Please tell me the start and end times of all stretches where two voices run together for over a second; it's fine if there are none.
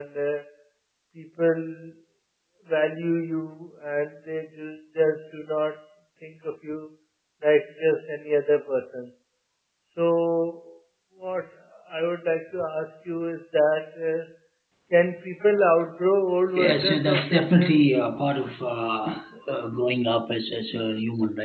16.6-17.8

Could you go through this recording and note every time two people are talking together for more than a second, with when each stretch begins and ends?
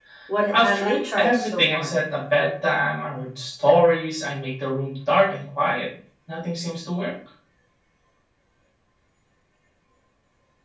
0.5-2.0

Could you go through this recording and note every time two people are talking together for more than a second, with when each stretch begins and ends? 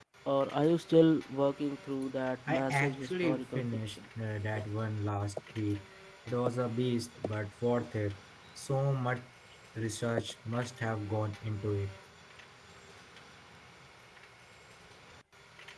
2.5-4.0

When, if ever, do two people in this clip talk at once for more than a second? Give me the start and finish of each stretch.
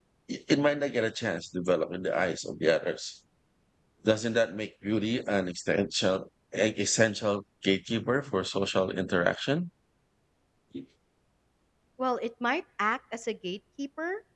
none

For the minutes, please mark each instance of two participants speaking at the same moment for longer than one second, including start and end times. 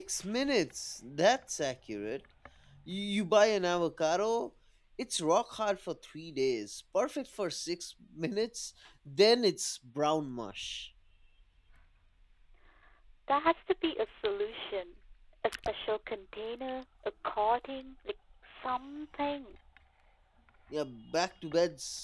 none

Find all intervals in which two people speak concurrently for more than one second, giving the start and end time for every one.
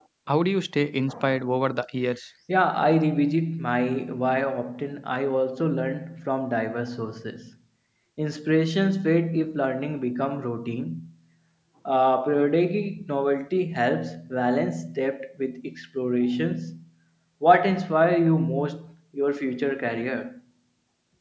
none

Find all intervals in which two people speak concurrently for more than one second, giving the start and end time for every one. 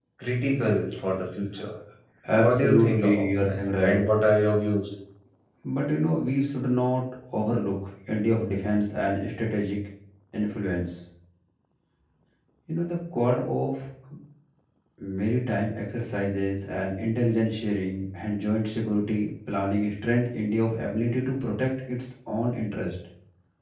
2.4-4.0

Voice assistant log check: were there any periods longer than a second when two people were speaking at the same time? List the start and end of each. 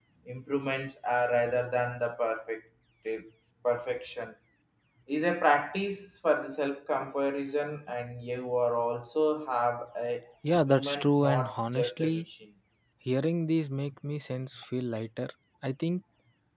10.7-12.2

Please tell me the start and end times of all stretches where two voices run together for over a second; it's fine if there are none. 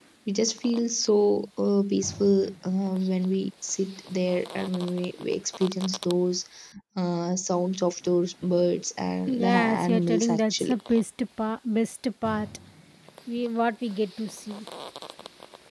9.4-10.8

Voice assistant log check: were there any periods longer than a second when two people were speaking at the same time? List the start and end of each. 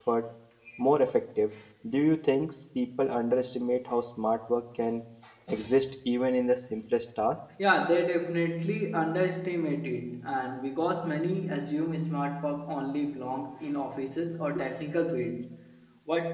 none

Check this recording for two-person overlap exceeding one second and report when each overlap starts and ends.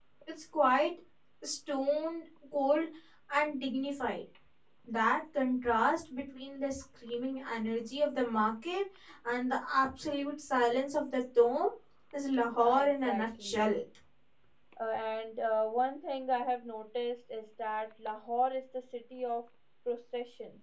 12.4-13.7

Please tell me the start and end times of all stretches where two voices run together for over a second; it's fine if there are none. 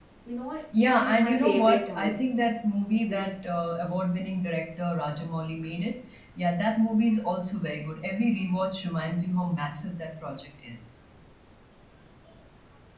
0.8-2.1

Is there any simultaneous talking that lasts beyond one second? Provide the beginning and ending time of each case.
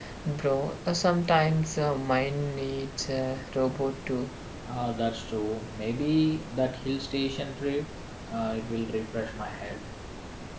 none

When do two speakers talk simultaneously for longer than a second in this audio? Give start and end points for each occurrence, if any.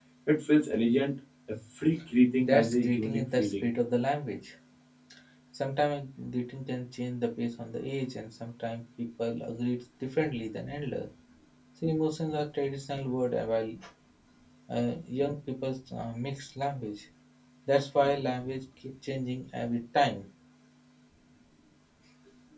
2.4-3.7

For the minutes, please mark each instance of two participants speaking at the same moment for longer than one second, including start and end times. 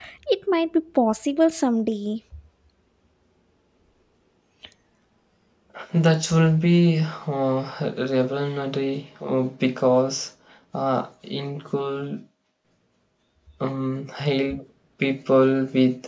none

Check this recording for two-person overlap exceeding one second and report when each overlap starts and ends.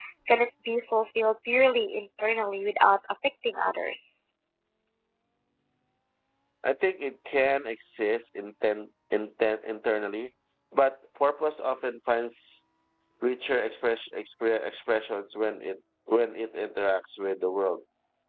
none

